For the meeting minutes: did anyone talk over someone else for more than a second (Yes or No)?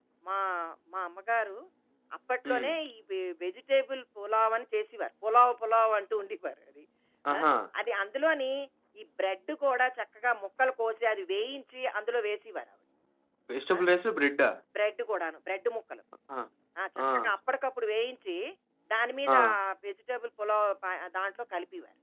No